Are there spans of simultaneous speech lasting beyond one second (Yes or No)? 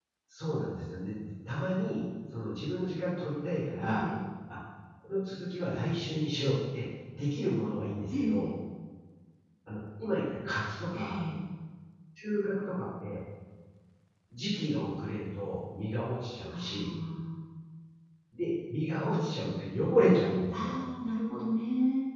No